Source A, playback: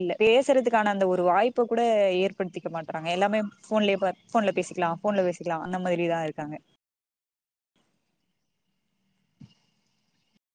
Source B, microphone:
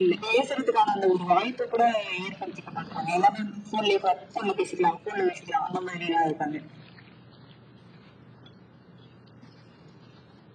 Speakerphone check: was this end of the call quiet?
Yes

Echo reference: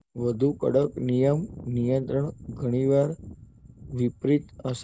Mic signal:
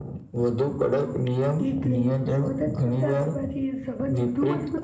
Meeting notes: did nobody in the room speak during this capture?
No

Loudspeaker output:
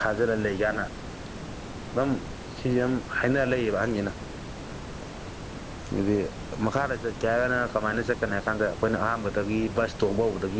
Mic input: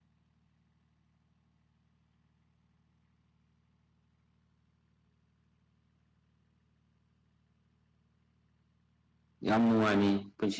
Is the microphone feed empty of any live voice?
No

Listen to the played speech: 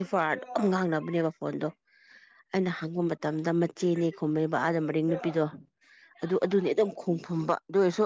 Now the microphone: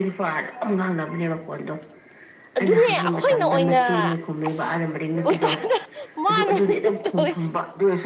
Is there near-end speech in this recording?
Yes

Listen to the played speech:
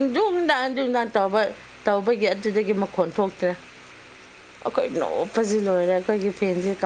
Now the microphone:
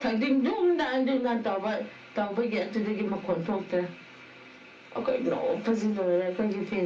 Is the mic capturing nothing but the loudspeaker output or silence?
Yes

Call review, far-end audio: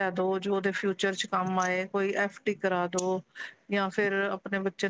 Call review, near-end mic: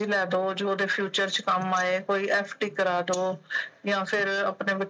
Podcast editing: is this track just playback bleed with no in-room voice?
Yes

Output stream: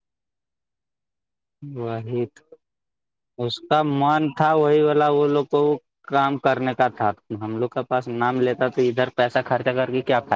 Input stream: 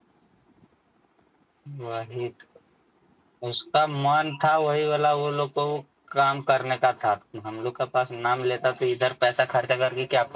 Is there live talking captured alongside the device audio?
No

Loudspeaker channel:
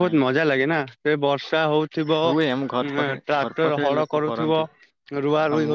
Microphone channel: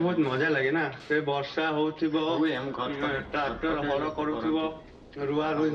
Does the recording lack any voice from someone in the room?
Yes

